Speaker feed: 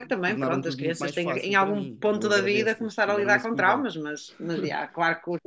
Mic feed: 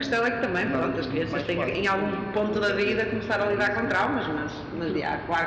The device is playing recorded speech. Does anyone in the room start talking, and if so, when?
none

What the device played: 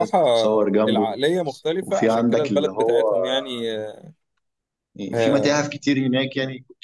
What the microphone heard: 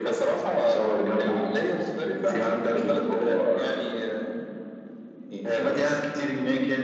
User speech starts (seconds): none

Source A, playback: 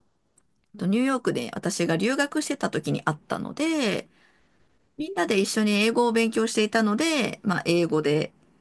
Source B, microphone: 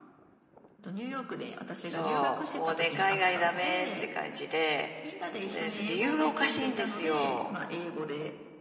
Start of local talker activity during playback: 1.8 s

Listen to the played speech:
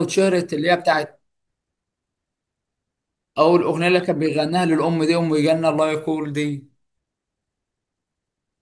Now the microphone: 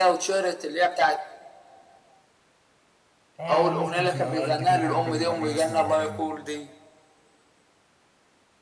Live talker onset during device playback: 3.4 s

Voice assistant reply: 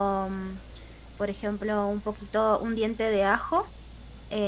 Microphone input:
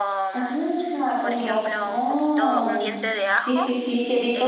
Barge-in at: 0.3 s

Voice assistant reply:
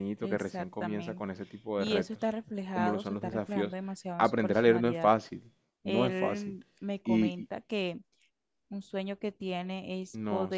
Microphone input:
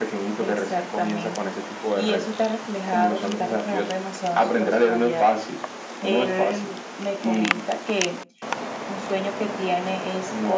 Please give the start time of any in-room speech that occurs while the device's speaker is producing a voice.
none

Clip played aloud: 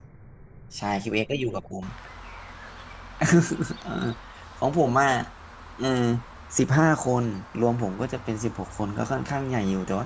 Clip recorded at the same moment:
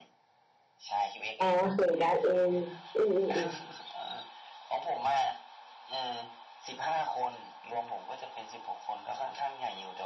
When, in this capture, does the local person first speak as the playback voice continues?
1.4 s

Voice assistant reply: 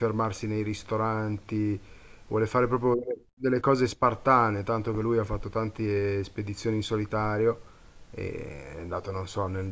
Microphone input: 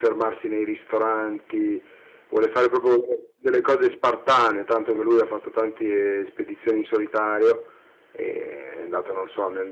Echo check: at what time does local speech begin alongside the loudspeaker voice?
none

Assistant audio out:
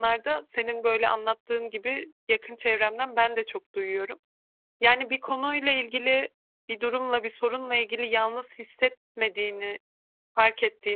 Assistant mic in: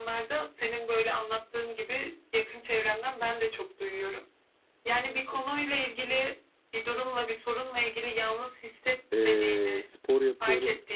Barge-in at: 9.1 s

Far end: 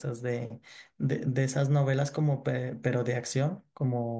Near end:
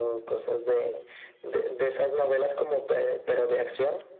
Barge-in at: none

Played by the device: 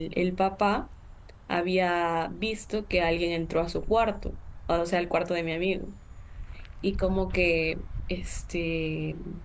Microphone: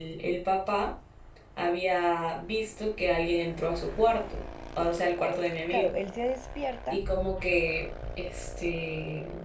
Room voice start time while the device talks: 5.7 s

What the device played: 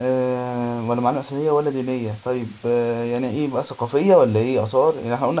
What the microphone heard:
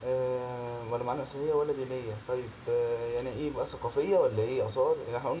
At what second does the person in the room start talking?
none

